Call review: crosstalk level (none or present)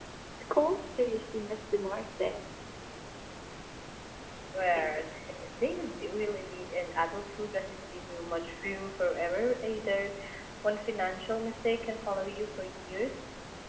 none